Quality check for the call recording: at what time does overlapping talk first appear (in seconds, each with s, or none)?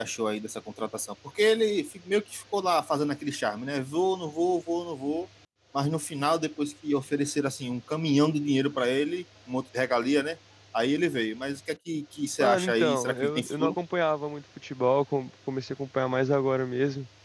12.4 s